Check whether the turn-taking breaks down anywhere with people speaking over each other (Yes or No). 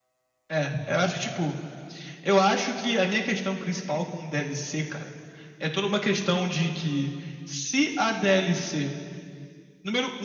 No